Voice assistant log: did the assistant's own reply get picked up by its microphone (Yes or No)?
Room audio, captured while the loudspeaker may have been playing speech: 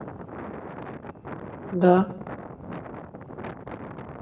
No